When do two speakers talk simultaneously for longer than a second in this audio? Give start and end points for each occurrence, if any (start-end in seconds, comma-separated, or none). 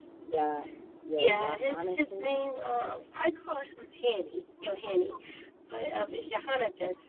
1.1-2.4